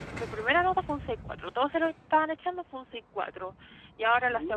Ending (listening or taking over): listening